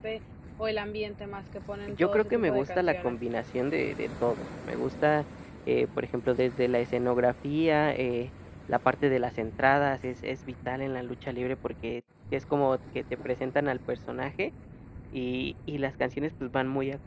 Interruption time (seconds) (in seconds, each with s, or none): 1.9 s